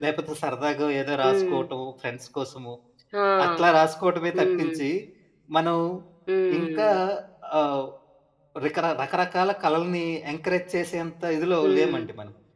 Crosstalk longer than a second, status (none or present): none